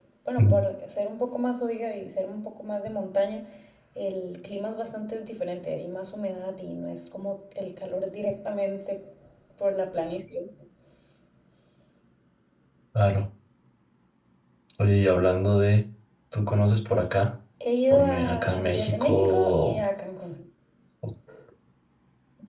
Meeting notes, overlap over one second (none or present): present